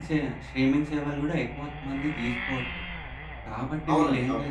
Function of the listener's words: listening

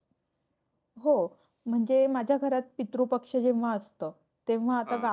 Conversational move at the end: listening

